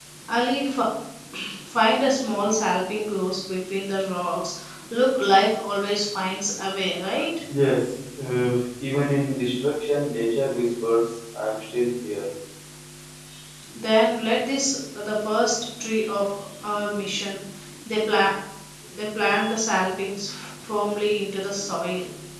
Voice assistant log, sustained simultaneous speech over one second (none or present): none